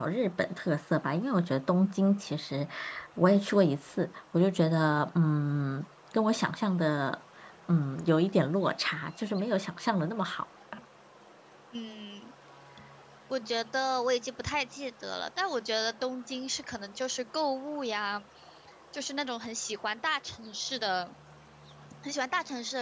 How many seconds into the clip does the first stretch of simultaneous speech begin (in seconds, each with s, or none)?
none